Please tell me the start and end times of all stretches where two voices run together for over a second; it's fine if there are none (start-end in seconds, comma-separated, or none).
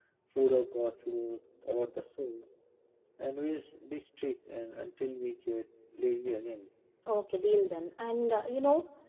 none